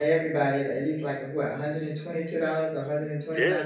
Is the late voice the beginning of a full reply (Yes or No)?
Yes